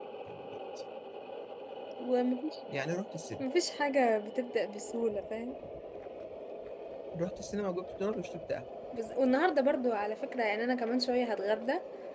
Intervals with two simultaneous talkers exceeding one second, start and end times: none

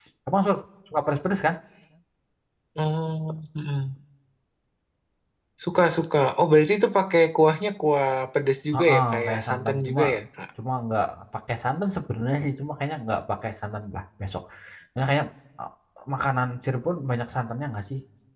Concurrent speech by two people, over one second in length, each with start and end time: 8.7-10.0

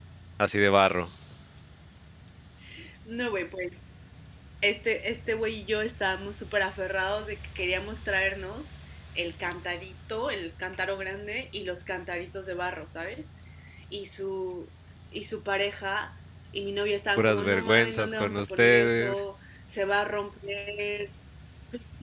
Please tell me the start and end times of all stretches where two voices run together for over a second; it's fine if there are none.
17.2-19.2

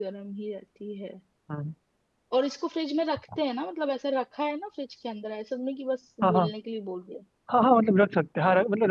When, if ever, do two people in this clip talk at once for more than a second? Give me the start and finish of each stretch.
none

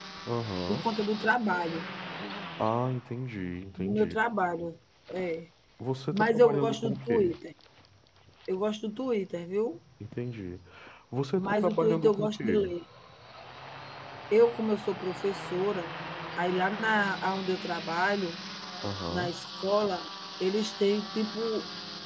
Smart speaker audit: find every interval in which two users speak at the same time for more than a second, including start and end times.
6.1-7.4, 11.4-12.7

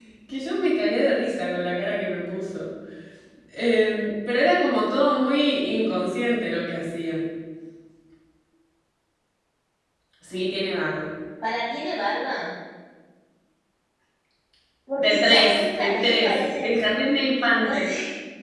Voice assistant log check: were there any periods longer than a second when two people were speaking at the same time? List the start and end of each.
15.0-16.8

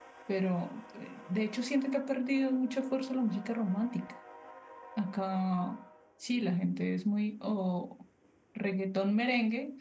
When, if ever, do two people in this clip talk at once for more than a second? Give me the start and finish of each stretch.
none

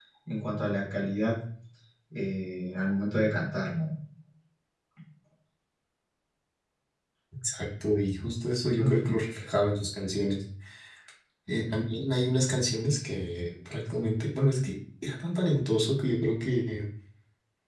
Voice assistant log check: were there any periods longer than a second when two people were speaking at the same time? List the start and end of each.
none

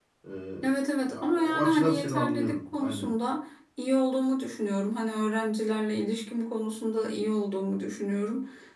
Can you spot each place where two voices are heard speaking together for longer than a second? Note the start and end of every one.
1.1-3.1

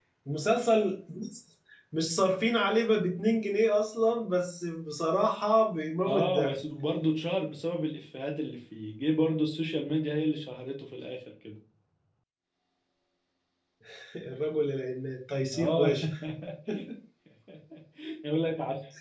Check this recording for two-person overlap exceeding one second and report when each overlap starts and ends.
none

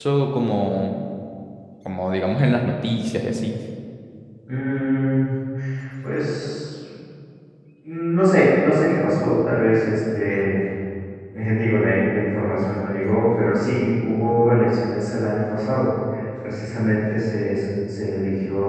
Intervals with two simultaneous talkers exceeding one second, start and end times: none

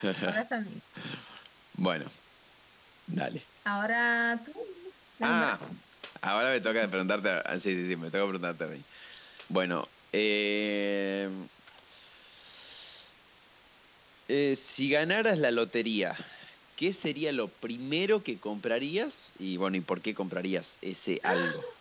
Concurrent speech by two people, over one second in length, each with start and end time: none

